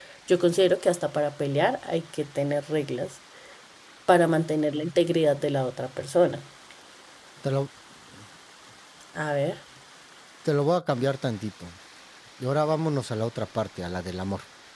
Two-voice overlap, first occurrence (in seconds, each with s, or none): none